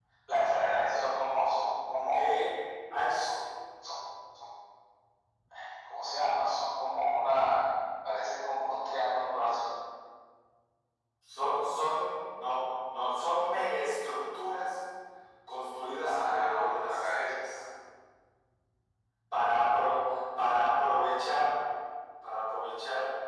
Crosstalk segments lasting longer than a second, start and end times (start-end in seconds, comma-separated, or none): 16.0-17.6